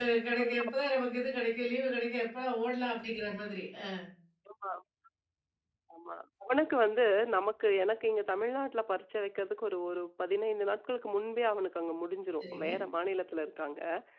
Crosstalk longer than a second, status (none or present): none